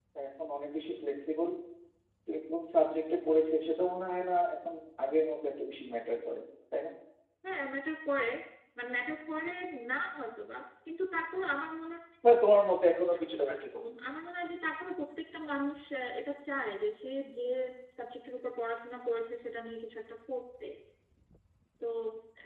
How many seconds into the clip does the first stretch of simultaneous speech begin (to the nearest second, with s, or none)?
none